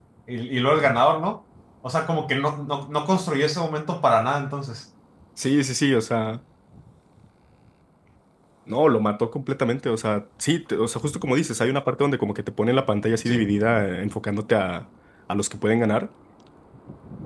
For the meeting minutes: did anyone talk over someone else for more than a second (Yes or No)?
No